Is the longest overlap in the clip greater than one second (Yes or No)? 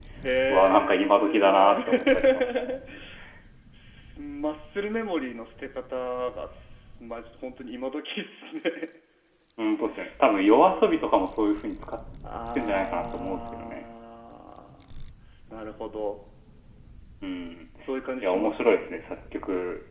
Yes